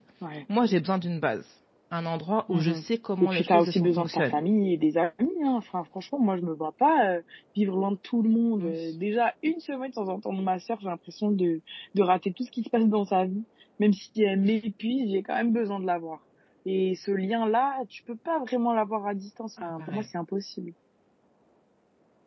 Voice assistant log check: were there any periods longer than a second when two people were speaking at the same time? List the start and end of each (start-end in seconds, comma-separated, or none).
3.2-4.4